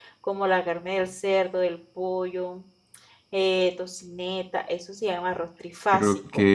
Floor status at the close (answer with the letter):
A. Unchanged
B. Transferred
B